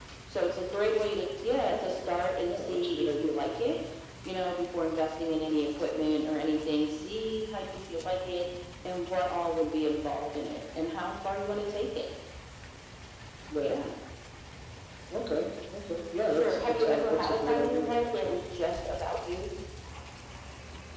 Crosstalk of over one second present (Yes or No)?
Yes